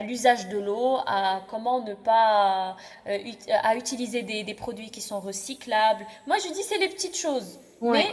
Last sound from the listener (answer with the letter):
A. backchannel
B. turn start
A